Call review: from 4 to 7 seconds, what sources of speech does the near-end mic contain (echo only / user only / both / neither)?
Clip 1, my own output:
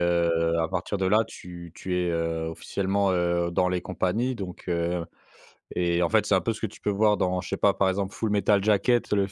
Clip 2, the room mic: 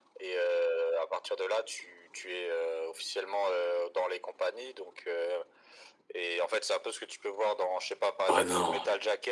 echo only